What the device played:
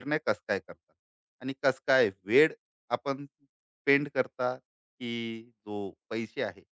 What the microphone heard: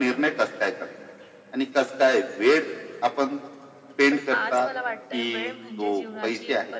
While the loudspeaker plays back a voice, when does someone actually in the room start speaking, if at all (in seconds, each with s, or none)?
4.1 s